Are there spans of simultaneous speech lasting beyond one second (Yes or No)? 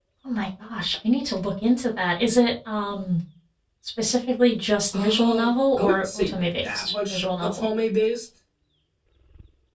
Yes